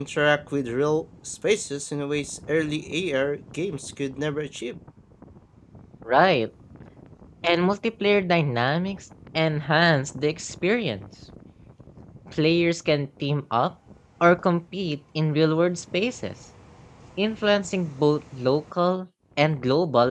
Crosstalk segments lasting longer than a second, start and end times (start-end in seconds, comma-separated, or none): none